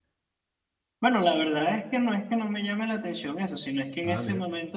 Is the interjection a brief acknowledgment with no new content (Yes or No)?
Yes